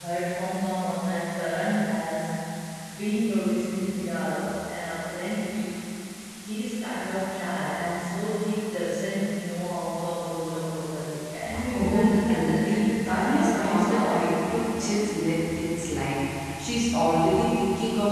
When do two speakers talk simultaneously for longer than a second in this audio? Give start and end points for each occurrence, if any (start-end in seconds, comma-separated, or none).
11.7-14.3